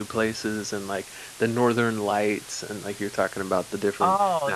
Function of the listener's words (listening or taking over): taking over